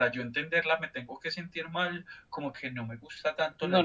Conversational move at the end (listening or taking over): taking over